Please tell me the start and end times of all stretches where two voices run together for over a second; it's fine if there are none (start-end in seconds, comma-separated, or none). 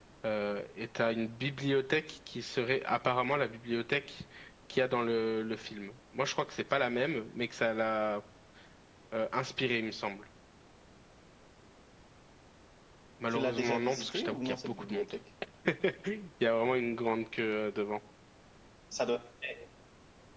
13.3-15.1